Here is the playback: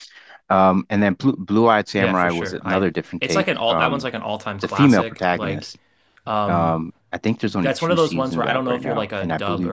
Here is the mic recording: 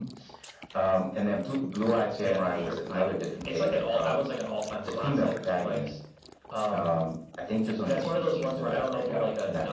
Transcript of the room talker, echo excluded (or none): none